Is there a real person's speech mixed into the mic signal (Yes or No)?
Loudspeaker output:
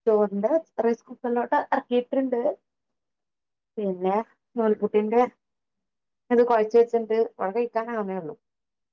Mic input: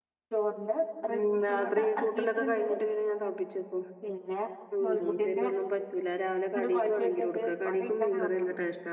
Yes